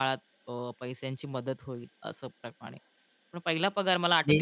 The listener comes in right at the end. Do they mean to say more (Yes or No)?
No